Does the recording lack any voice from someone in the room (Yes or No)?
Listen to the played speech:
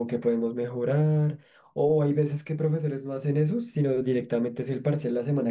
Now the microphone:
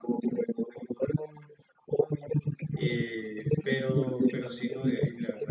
No